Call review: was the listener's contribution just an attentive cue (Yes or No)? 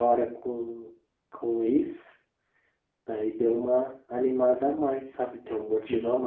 Yes